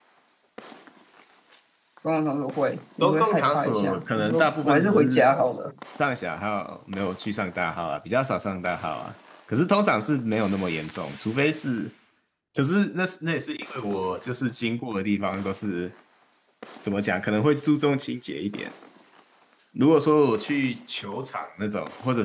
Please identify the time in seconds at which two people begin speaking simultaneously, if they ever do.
3.0 s

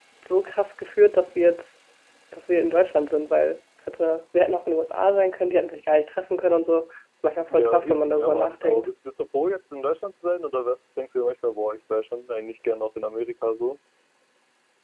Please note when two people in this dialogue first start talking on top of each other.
7.5 s

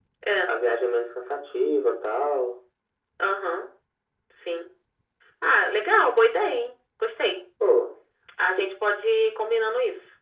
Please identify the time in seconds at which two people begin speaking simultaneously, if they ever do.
none

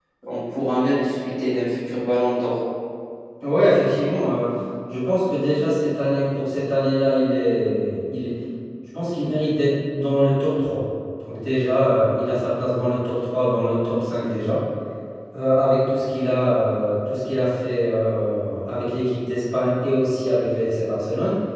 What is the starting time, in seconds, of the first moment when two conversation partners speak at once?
none

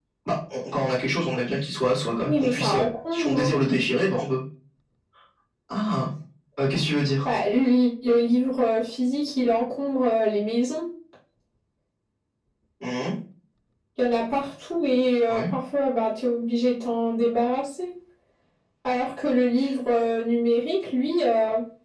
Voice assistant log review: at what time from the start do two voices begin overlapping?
2.2 s

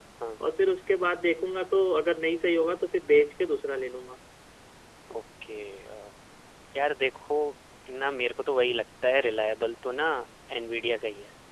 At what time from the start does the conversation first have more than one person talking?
none

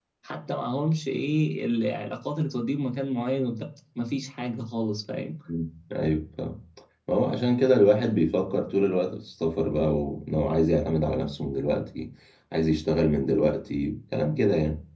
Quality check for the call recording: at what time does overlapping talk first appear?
none

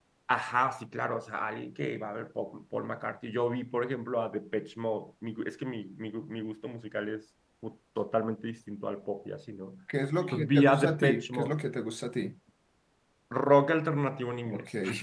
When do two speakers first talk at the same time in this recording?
10.3 s

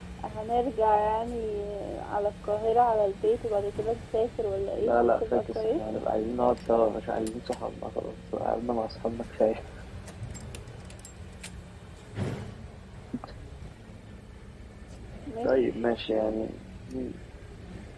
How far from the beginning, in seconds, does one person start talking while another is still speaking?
4.8 s

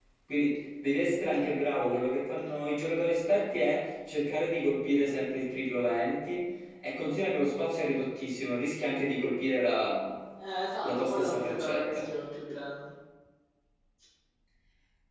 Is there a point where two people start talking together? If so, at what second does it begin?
10.8 s

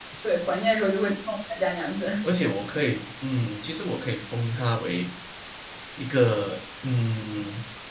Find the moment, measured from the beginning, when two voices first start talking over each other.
none

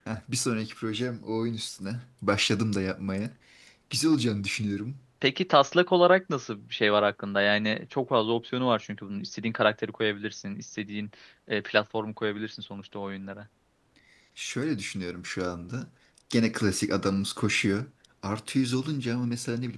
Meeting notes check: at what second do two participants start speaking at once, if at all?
none

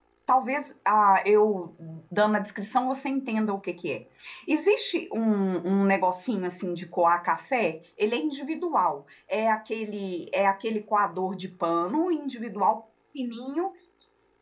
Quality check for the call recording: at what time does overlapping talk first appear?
none

